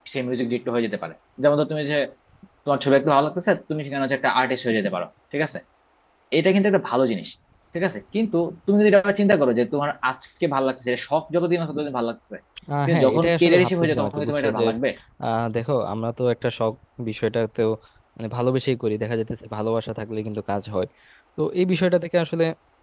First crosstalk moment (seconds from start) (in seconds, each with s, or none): 12.9 s